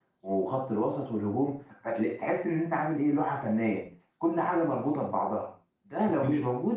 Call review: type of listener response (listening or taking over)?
listening